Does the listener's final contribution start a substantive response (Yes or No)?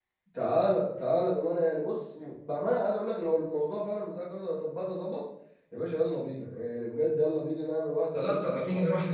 Yes